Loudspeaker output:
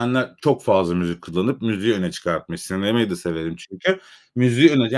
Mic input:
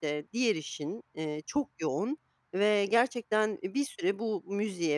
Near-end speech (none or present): present